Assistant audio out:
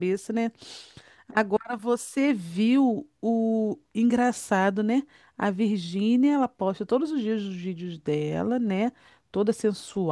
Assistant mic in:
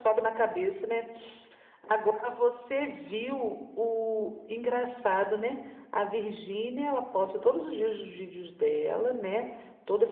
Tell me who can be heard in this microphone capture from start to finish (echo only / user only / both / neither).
echo only